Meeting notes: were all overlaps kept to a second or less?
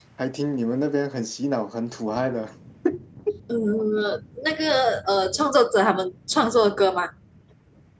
Yes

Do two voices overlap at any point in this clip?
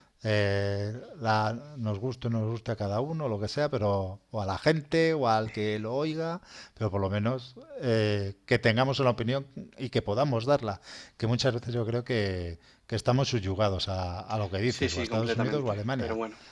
Yes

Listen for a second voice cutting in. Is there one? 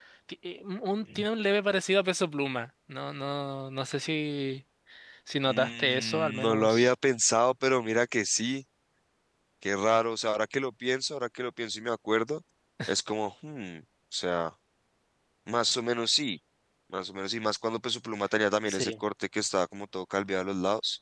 Yes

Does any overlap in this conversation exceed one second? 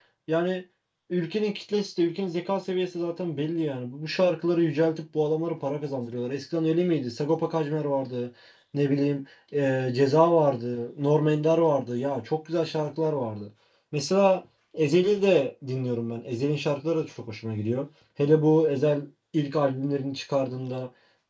No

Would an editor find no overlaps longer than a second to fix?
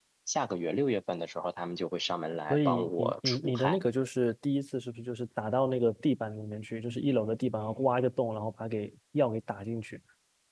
No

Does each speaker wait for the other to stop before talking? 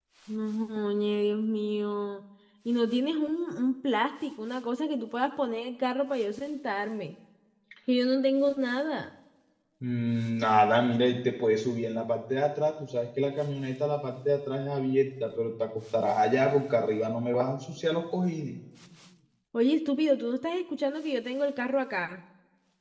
Yes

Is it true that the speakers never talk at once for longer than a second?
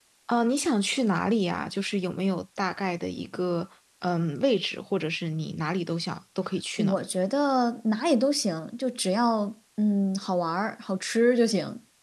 Yes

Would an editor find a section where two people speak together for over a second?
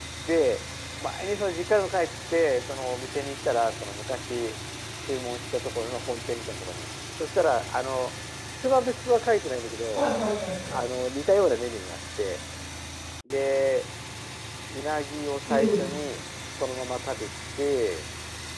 No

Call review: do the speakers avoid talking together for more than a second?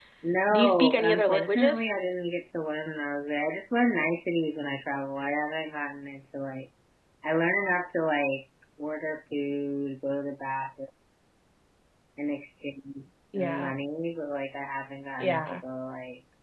No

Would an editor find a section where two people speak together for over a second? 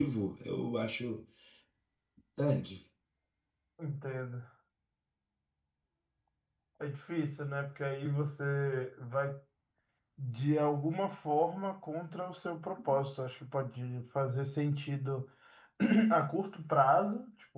No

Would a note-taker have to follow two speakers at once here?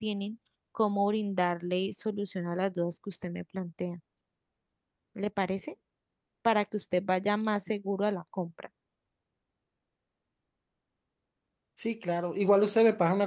No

